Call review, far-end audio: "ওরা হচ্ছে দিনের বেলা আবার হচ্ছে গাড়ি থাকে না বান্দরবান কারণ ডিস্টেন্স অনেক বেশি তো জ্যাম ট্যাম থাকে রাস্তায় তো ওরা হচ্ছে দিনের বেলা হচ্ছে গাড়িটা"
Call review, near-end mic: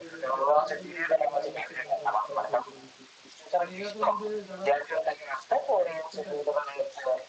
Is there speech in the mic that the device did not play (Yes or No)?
Yes